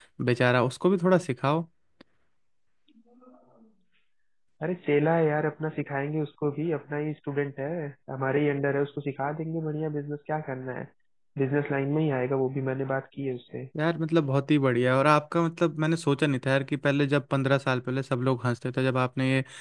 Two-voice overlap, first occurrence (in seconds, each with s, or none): none